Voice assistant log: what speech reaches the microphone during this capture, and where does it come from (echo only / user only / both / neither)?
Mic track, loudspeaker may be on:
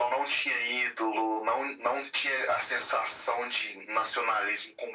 echo only